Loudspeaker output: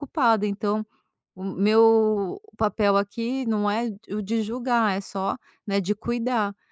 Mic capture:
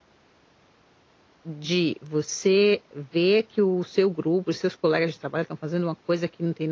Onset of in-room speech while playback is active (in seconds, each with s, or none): 1.4 s